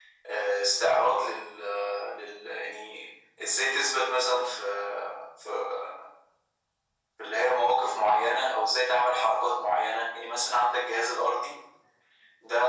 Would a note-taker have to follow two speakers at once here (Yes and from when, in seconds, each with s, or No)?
No